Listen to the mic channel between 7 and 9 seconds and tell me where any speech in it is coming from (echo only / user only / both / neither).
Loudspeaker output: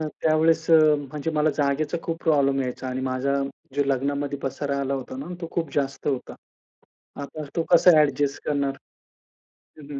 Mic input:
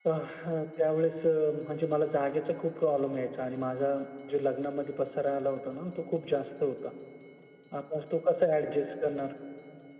echo only